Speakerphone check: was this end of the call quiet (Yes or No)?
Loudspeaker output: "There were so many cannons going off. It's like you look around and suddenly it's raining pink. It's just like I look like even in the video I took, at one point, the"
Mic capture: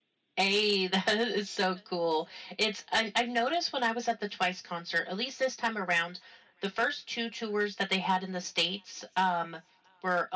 No